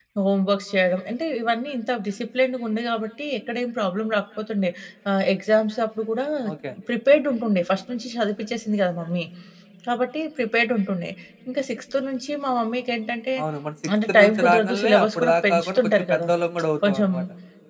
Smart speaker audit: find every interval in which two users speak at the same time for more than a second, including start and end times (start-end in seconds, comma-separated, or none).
14.1-16.2